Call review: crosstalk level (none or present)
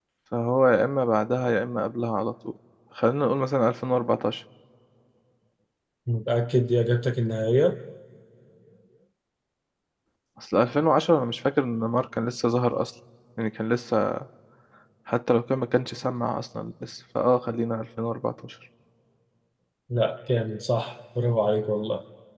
none